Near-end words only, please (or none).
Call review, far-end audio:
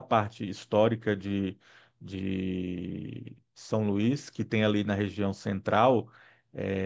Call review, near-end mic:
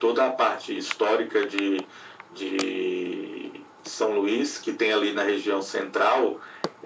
none